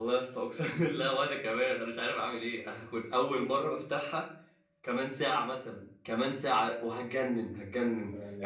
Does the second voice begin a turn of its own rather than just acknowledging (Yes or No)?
Yes